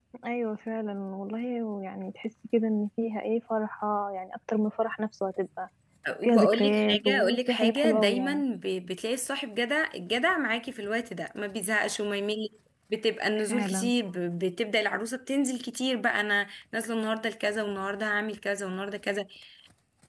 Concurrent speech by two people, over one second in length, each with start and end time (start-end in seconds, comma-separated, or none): 6.2-8.4